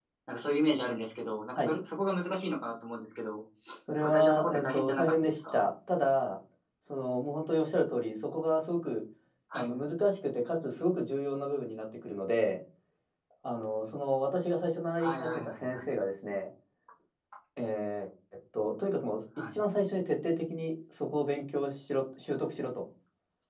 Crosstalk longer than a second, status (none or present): present